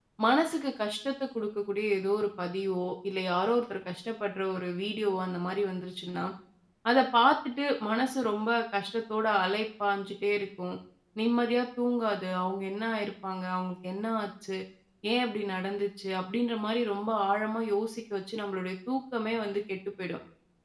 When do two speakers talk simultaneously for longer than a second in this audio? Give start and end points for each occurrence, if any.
none

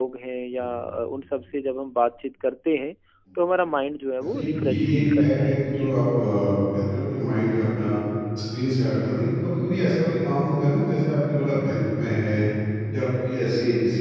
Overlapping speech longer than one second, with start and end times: 4.3-5.9

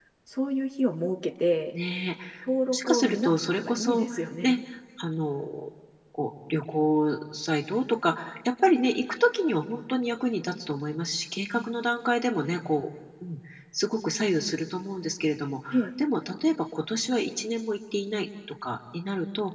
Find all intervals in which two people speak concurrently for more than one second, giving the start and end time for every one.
2.7-4.6

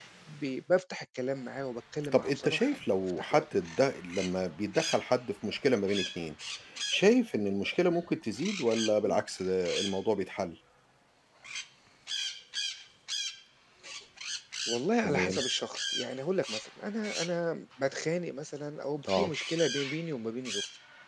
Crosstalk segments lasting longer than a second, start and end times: 2.1-3.4

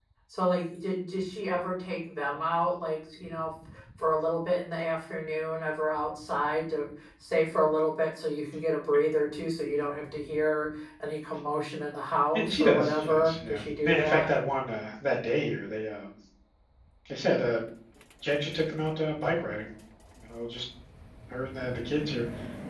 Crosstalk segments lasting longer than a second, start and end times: 12.3-14.3

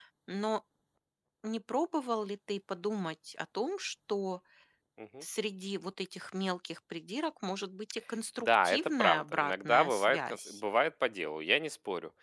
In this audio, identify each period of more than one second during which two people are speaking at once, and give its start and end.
8.5-10.6

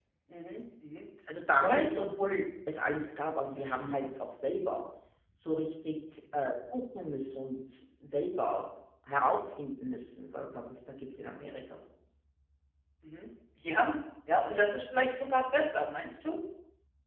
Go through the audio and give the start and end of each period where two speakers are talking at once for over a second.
none

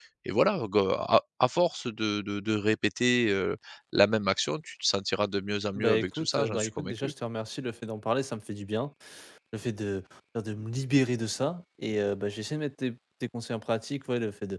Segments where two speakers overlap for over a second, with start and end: 5.8-7.1

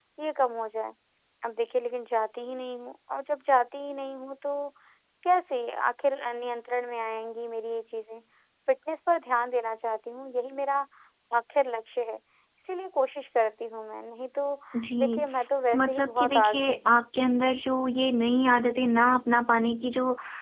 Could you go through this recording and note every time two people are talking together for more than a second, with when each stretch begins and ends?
15.7-17.0

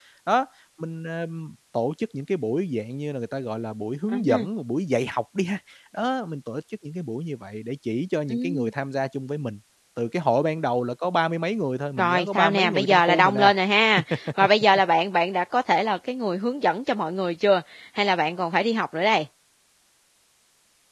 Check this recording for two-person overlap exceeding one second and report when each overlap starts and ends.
12.0-13.5

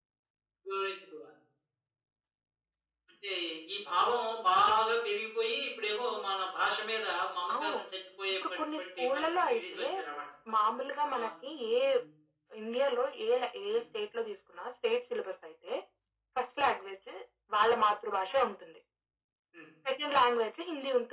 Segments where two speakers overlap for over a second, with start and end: 8.3-9.8

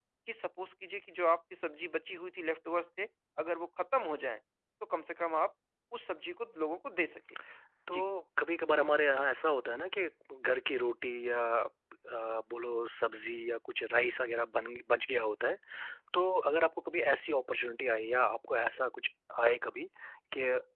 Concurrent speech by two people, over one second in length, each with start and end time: none

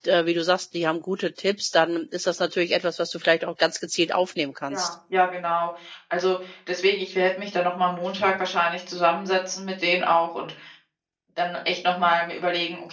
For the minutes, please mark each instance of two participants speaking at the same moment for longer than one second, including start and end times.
none

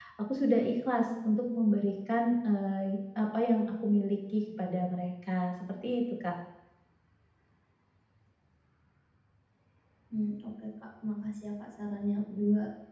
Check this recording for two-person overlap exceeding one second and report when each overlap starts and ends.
none

